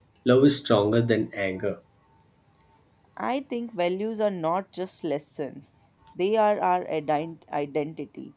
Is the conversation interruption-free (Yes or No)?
Yes